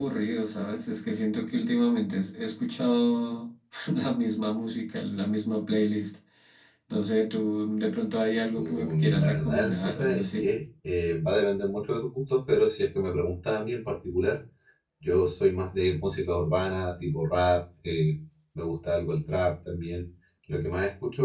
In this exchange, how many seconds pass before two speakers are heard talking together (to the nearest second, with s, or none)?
9 s